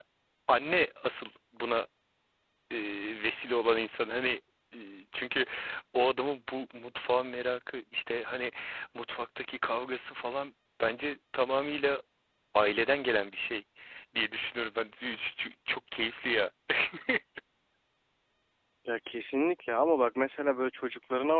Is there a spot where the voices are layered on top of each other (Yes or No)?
No